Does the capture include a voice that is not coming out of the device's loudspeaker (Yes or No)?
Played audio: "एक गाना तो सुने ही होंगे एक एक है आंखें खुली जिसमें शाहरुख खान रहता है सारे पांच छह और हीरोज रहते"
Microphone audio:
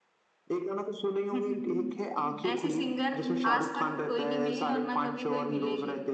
Yes